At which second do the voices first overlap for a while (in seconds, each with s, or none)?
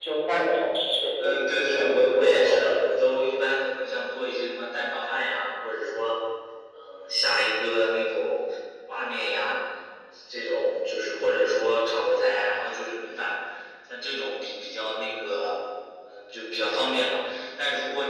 1.2 s